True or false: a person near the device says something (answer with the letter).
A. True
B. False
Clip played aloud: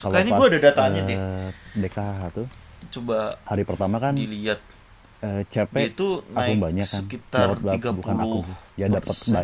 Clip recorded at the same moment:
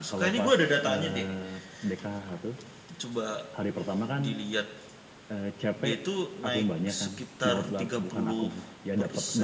B